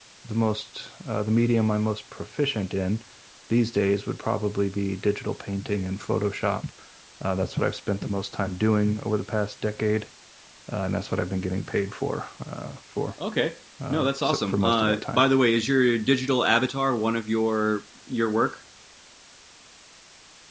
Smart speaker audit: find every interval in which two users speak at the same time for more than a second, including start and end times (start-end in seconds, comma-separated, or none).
13.9-15.2